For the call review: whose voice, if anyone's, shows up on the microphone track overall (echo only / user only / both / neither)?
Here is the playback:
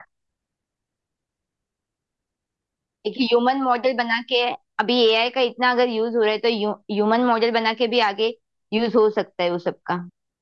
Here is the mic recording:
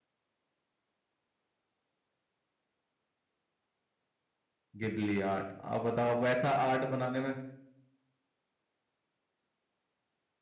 user only